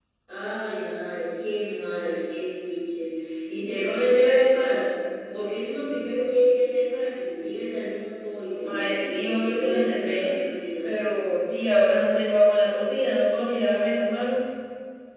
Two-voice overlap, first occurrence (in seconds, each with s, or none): 8.6 s